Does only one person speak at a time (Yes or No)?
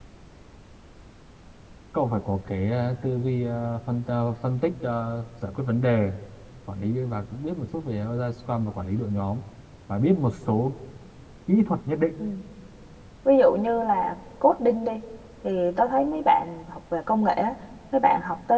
Yes